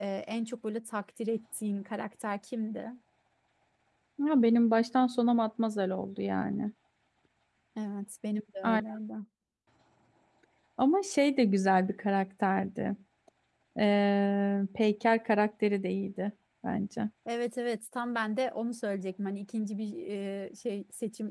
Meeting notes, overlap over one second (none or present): none